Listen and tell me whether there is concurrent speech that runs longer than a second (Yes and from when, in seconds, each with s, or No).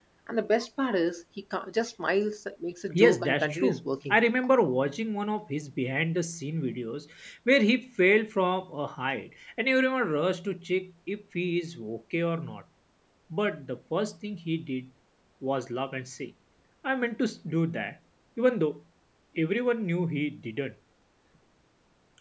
Yes, from 2.9 s